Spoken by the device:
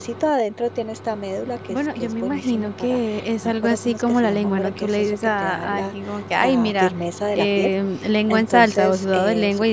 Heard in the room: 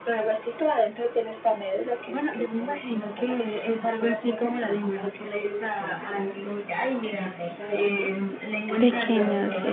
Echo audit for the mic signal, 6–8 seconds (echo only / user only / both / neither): echo only